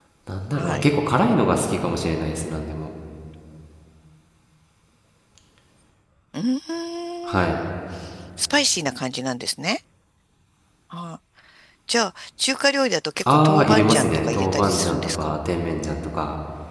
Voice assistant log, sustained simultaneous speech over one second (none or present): present